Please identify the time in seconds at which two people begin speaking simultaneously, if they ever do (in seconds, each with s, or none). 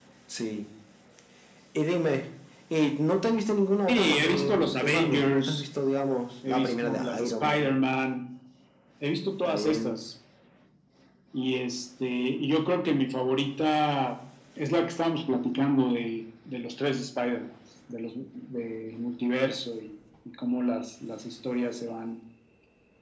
3.9 s